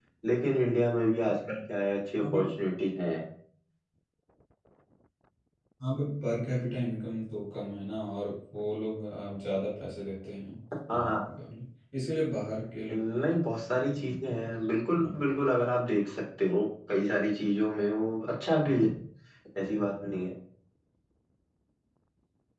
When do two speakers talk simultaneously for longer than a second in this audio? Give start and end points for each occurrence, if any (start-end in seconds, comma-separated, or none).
none